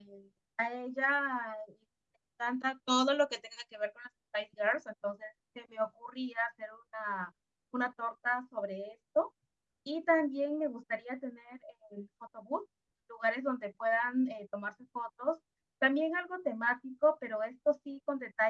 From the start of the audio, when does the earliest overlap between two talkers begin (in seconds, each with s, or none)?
none